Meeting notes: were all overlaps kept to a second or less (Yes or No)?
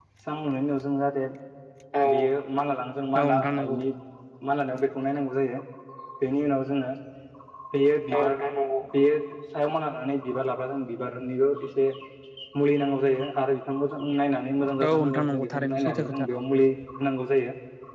No